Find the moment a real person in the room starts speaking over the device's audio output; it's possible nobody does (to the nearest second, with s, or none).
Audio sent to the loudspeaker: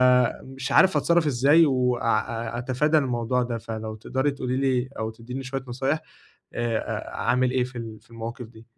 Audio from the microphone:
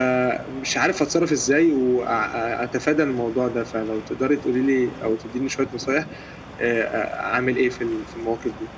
none